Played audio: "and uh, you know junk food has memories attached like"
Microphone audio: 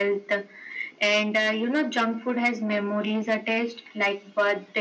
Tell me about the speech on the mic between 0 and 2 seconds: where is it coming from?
echo only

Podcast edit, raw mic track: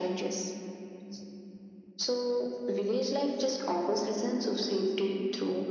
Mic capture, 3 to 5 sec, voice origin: echo only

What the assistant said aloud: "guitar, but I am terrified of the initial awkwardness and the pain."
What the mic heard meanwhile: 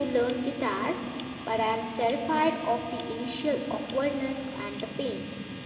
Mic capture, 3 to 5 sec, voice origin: echo only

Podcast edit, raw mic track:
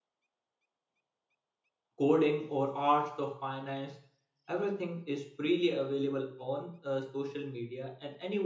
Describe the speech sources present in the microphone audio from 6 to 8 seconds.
user only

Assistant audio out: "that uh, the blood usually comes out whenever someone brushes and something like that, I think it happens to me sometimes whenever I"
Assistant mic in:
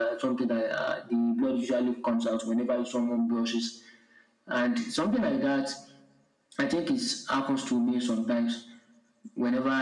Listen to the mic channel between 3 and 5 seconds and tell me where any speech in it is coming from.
echo only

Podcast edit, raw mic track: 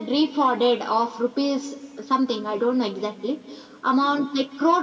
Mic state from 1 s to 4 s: echo only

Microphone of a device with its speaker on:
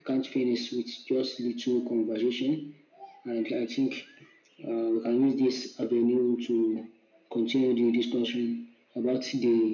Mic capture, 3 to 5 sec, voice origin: echo only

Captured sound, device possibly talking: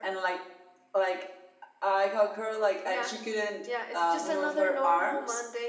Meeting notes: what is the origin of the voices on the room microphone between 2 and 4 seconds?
echo only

